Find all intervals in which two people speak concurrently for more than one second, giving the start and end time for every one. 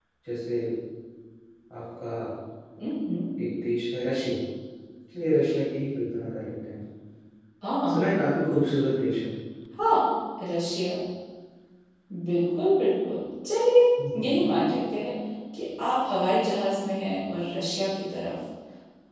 none

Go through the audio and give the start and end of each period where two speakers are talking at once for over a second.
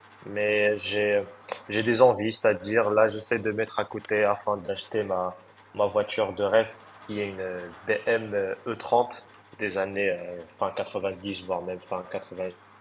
none

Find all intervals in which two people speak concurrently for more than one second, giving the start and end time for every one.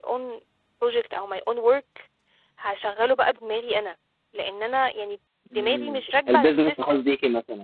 5.6-7.0

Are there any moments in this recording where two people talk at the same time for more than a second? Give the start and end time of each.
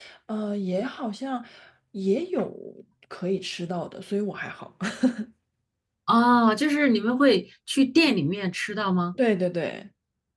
none

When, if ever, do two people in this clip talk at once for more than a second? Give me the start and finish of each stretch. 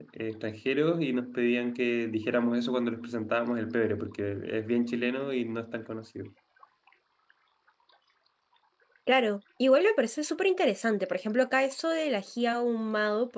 none

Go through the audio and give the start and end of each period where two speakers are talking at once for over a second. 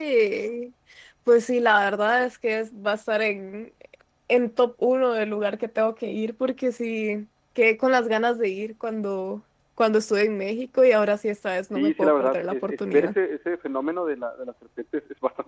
11.7-13.1

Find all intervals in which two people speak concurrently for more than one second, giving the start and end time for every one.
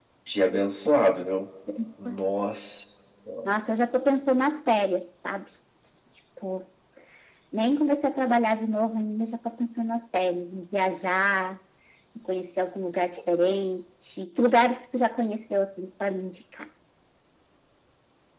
none

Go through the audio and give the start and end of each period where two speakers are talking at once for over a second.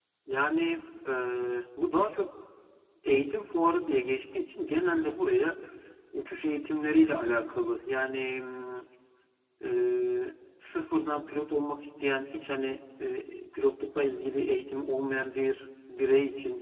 none

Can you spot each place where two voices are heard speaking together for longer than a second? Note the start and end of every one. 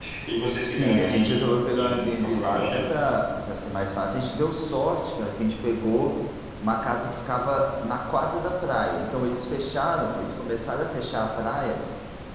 0.7-2.9

